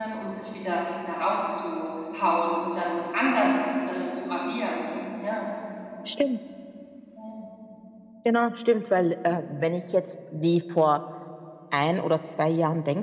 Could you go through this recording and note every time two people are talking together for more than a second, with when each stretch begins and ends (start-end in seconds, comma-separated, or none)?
none